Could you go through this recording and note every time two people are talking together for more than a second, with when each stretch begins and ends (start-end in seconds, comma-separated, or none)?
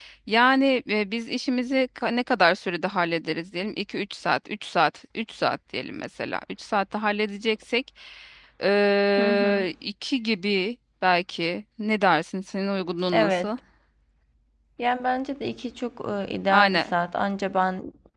none